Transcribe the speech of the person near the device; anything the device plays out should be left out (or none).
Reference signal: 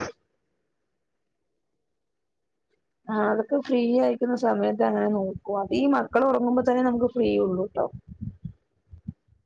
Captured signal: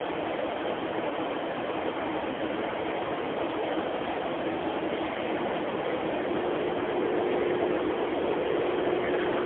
none